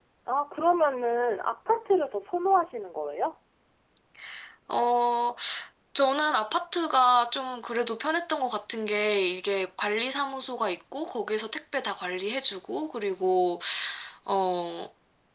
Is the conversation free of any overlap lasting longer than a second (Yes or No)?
Yes